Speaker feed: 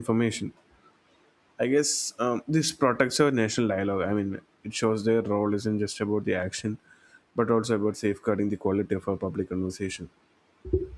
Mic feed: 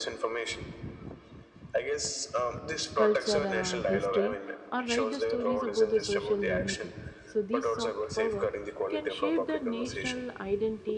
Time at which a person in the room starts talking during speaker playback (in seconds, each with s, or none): 2.9 s